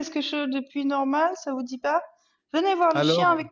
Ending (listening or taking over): listening